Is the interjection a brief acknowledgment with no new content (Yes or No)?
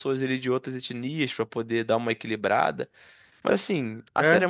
Yes